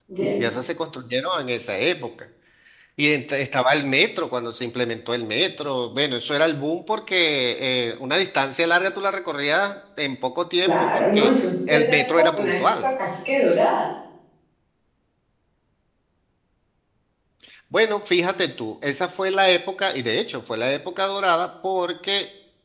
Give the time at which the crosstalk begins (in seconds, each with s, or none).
10.6 s